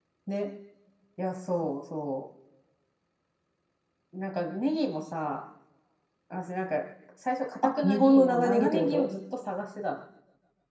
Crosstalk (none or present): present